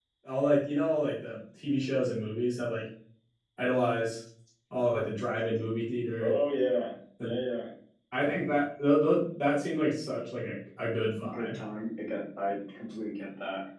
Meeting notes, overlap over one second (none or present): none